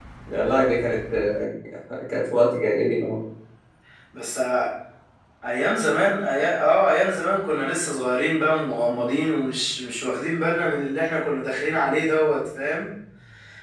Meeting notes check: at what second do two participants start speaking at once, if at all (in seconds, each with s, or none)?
none